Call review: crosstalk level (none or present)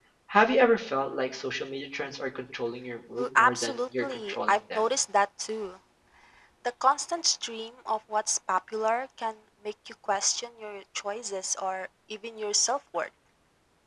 present